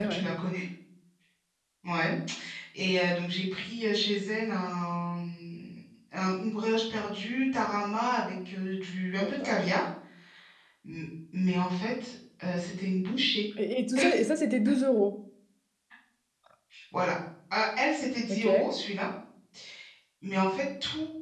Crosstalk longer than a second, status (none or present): none